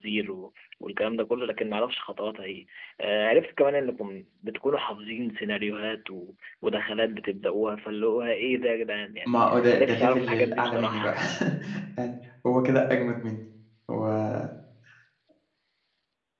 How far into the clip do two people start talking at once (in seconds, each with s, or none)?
9.3 s